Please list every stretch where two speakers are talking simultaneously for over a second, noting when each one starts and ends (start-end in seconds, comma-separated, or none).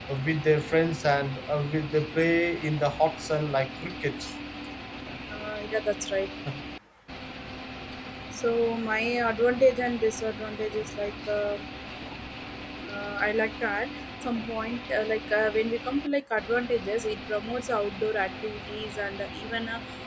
none